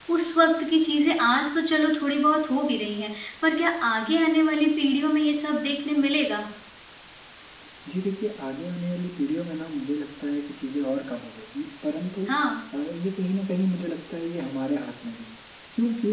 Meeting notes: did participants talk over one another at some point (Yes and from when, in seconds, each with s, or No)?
No